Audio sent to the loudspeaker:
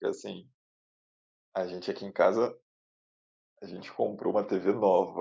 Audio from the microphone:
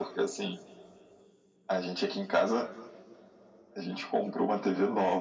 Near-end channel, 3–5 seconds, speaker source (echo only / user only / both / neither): echo only